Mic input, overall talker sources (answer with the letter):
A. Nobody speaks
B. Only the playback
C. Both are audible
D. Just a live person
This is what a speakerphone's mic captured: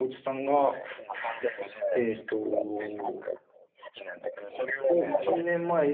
C